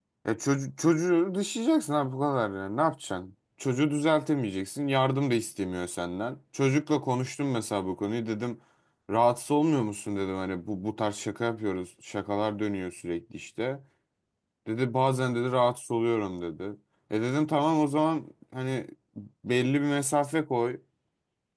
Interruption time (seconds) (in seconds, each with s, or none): none